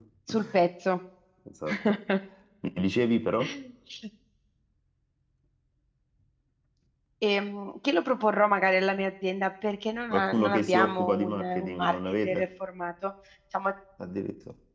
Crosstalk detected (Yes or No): Yes